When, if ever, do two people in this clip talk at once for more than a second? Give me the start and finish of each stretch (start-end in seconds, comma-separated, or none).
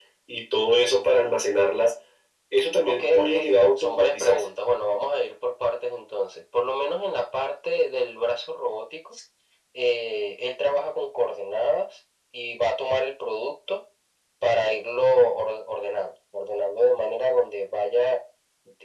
3.0-4.4